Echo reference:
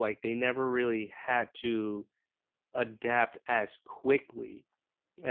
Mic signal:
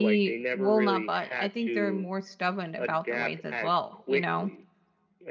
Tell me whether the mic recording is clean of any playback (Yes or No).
No